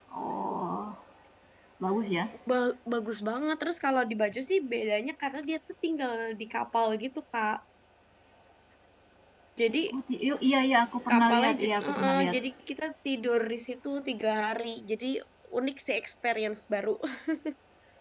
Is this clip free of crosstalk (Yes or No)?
No